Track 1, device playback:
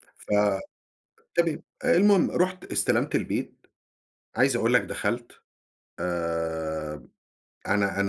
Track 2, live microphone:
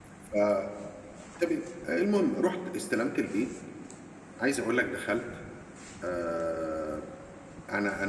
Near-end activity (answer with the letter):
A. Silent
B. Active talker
A